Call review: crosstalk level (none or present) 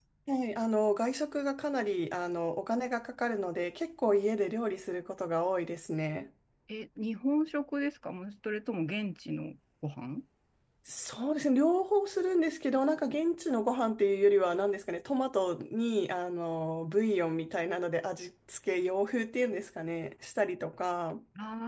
none